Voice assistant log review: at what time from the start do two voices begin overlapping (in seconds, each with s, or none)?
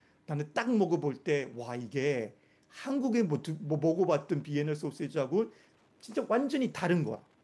none